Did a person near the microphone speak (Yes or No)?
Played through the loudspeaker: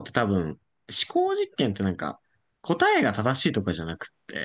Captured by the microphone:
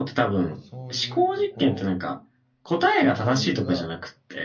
Yes